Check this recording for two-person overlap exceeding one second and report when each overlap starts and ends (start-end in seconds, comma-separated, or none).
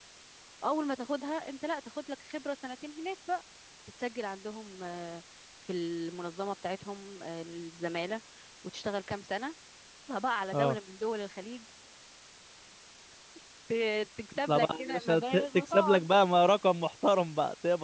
14.5-16.1